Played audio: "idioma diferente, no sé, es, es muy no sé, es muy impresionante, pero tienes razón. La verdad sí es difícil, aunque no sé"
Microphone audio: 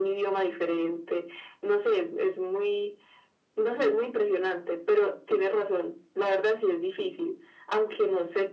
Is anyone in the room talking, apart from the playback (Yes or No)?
No